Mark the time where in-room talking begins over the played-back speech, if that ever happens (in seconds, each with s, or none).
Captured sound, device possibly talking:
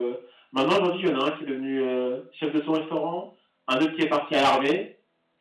none